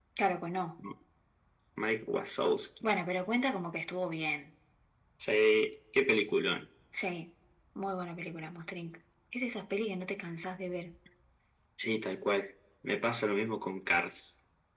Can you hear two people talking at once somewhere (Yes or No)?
No